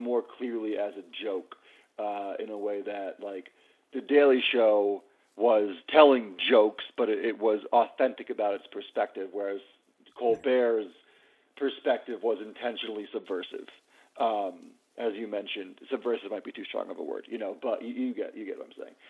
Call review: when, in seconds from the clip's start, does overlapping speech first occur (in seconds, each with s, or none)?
none